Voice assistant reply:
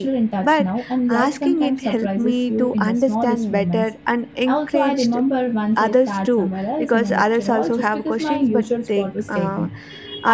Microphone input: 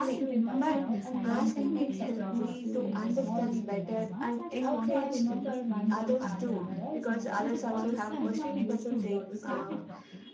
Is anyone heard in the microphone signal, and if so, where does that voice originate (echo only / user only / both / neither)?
both